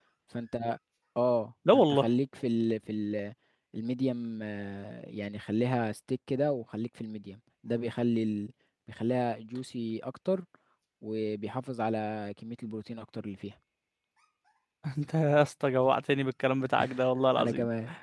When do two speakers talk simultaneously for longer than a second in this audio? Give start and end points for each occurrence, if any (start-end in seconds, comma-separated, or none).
none